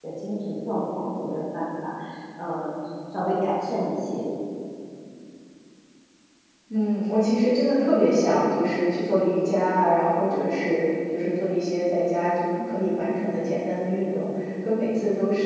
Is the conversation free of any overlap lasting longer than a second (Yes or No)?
Yes